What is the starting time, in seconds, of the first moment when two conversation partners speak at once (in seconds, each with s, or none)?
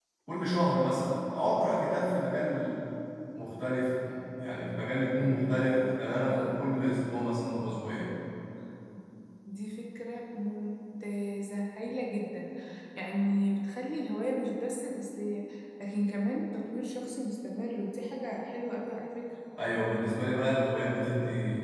5.2 s